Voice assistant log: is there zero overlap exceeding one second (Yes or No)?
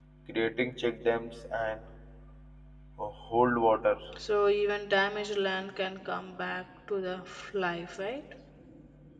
Yes